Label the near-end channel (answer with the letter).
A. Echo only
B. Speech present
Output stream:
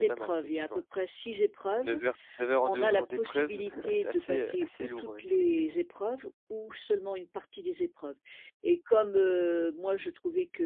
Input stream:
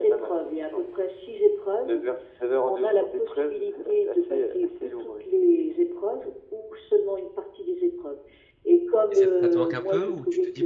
B